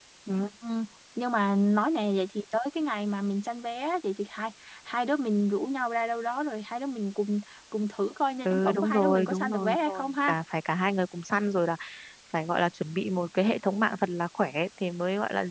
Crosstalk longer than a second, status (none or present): present